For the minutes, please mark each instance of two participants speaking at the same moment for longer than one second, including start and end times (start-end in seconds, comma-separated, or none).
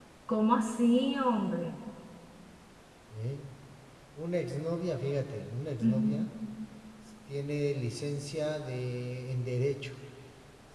none